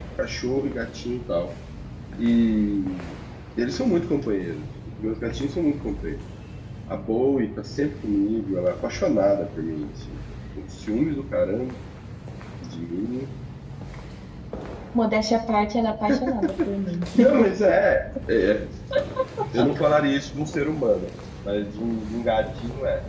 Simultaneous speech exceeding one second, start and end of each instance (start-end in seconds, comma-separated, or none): none